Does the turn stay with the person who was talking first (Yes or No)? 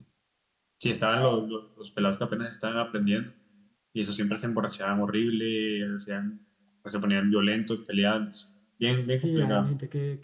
No